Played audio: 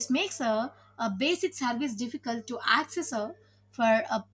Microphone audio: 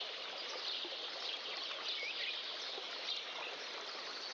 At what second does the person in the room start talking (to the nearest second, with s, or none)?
none